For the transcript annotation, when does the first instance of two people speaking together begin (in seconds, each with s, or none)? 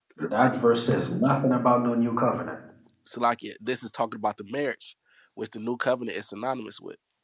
none